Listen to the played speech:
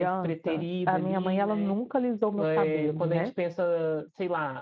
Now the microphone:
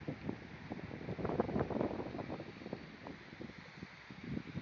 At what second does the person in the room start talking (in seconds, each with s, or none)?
none